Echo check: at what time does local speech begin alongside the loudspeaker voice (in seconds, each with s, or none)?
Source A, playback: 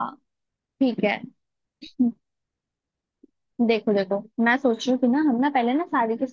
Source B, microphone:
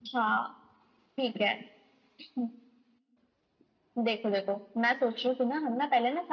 none